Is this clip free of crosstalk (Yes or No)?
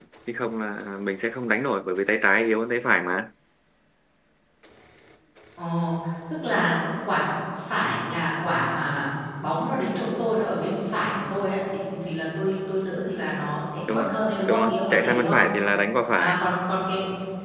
No